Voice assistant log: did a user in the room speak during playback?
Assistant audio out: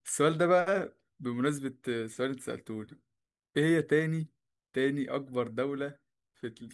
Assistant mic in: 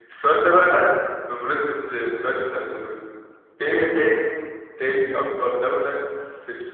No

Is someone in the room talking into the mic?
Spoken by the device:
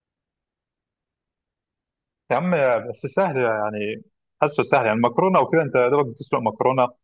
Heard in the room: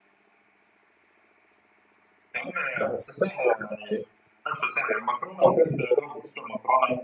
No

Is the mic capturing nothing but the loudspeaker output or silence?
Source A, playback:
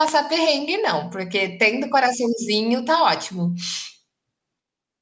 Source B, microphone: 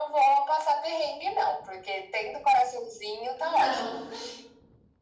No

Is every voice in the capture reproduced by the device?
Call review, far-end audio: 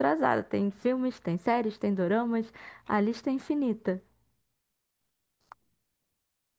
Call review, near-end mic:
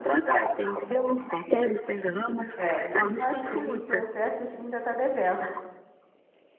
No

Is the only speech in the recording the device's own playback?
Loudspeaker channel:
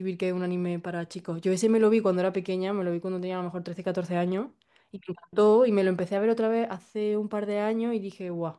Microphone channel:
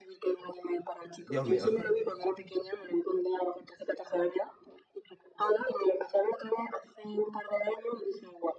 No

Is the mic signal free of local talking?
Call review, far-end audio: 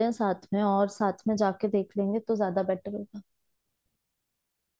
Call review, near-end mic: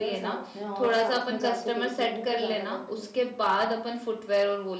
No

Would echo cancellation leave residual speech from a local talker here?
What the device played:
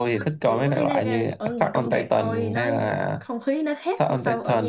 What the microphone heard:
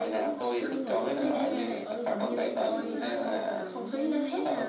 Yes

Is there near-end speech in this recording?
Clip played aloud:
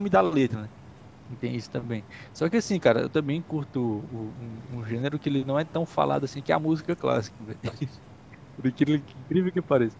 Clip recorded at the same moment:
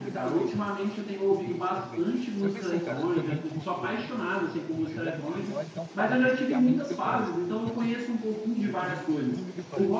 Yes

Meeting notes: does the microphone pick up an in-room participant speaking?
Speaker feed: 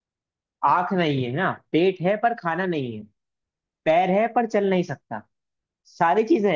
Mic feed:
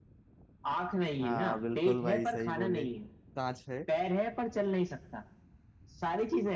Yes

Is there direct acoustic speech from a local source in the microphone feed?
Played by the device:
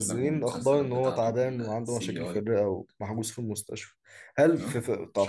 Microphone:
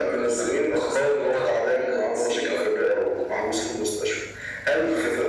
No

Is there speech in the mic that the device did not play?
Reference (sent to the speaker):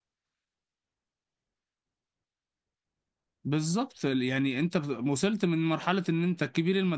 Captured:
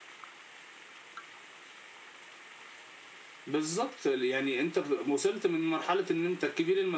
No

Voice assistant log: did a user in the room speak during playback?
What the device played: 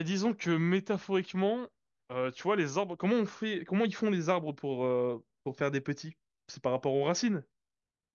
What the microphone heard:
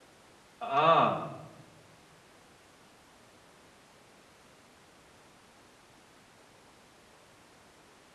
Yes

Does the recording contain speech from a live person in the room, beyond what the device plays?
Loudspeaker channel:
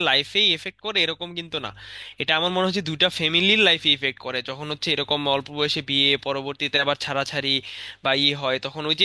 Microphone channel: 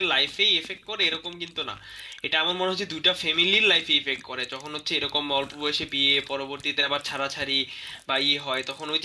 No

